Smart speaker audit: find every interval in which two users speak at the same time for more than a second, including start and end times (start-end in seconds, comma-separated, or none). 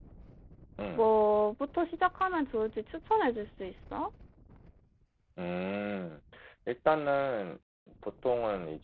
none